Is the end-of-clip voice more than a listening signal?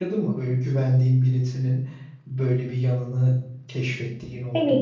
Yes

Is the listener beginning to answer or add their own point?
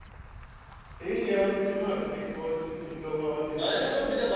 Yes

